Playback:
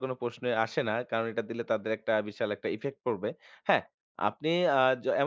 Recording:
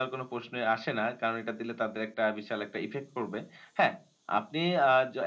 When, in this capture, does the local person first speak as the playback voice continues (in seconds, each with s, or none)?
none